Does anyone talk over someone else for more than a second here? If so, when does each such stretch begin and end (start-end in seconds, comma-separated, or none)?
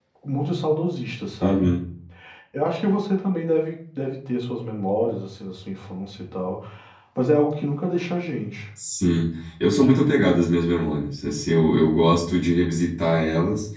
none